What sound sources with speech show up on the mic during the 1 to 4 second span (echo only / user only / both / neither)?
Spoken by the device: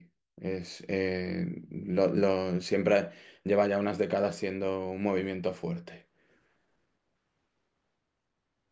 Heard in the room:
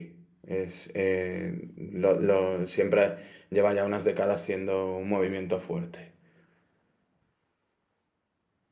echo only